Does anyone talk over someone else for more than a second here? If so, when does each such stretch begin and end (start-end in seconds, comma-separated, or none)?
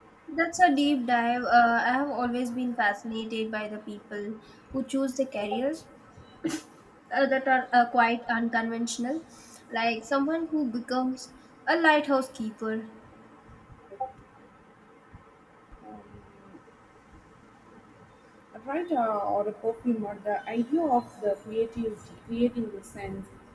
none